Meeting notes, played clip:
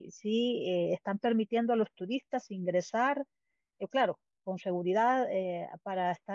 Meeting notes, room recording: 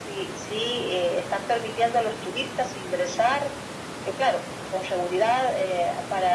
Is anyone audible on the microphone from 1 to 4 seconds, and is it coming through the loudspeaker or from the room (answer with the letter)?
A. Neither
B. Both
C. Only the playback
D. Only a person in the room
C